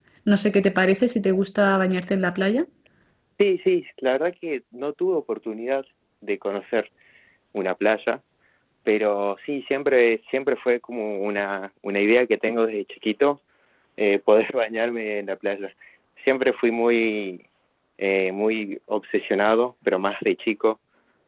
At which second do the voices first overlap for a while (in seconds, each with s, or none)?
none